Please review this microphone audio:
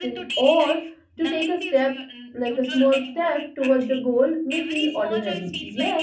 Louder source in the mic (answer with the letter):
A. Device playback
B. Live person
B